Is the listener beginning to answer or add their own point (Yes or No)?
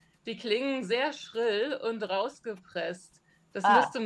No